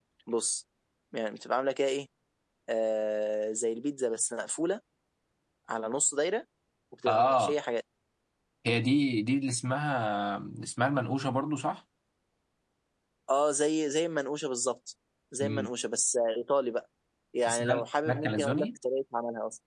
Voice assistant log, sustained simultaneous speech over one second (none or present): present